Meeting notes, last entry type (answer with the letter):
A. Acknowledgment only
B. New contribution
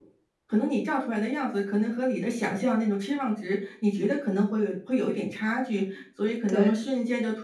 A